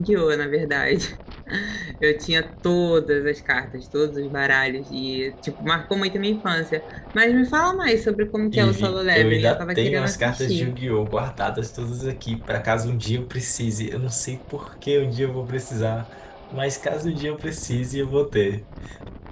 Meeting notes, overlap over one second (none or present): present